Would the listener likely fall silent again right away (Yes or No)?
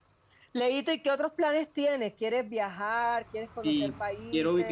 No